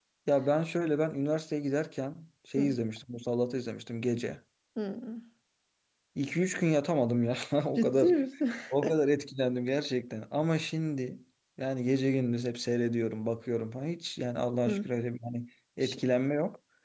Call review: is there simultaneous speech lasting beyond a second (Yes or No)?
No